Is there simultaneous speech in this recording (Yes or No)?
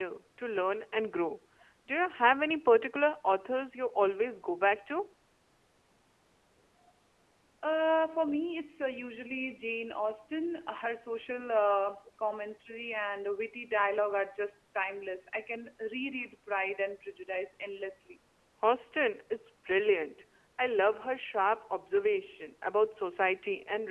No